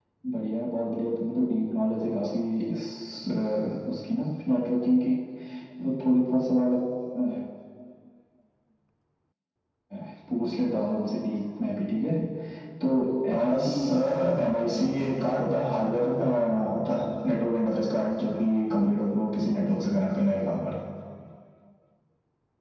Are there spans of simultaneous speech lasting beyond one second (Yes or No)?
Yes